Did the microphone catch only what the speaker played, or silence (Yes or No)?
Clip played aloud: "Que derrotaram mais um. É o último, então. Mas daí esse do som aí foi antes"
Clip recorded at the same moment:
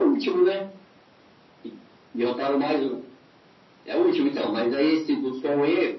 Yes